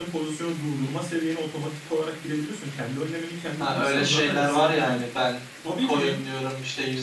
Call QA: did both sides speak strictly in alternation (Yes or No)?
No